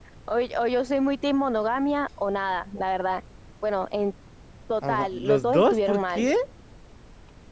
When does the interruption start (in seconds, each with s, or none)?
4.8 s